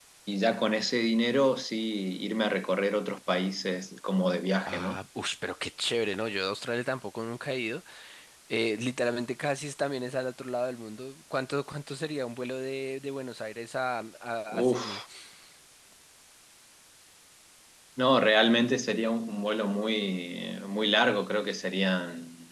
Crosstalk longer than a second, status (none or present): none